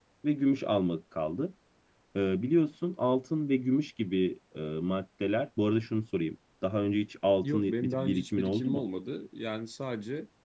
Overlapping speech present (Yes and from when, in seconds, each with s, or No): Yes, from 7.4 s